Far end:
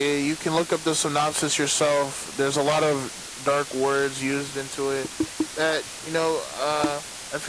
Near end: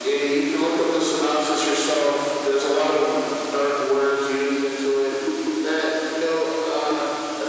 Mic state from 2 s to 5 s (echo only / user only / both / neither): echo only